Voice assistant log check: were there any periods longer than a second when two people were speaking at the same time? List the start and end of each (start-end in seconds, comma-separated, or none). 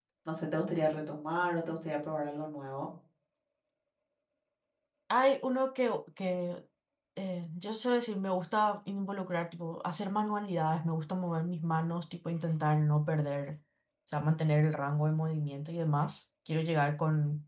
none